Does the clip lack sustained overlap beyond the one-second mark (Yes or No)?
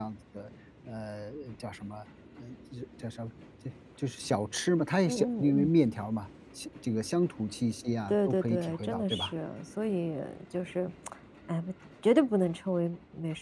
No